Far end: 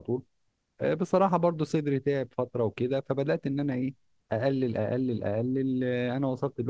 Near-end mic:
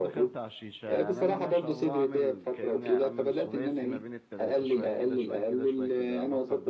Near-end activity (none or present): present